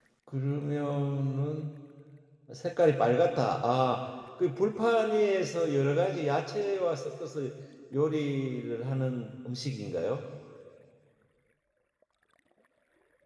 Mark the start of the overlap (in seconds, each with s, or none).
none